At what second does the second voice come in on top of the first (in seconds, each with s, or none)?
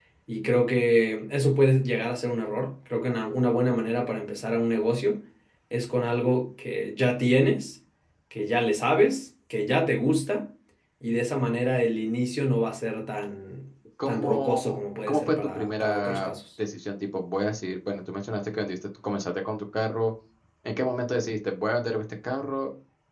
14.0 s